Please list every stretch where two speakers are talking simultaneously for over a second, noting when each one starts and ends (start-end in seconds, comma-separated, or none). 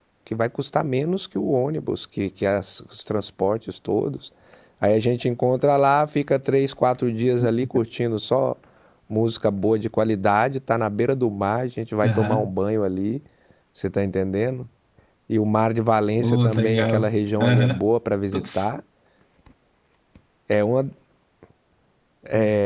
16.2-17.8